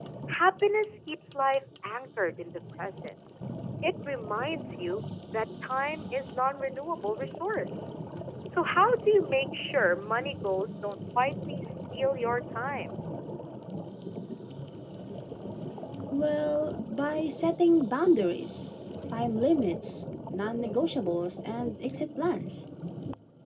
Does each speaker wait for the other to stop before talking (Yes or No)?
Yes